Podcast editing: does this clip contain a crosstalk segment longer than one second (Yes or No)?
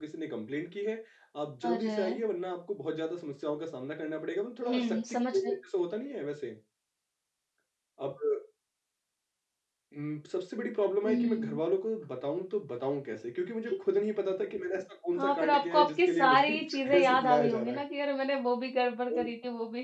Yes